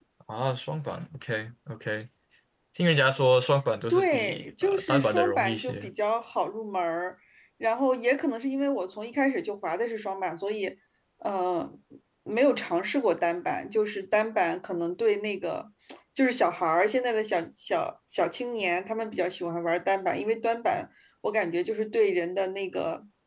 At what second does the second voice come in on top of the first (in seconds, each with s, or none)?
3.9 s